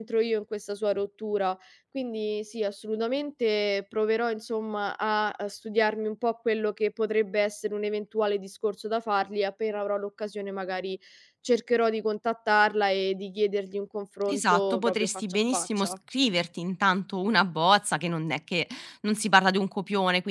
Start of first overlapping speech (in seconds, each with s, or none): 14.3 s